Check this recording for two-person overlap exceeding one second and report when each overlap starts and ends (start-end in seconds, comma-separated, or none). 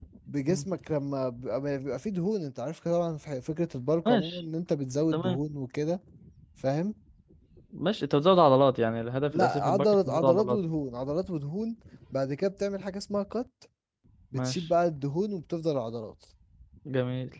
9.3-10.6